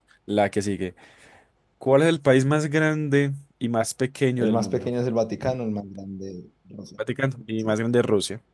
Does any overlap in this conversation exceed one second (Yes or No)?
No